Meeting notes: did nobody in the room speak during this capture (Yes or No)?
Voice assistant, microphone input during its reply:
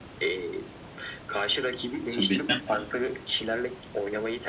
No